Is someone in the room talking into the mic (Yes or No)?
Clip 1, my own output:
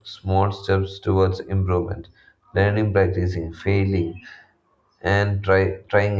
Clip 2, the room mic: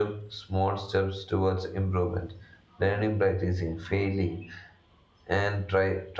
No